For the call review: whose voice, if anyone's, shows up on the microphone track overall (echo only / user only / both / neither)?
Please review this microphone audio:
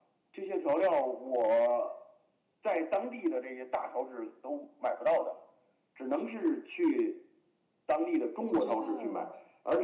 both